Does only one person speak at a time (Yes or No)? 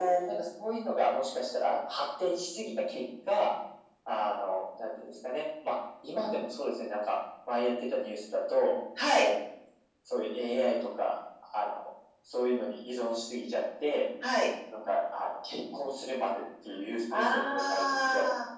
No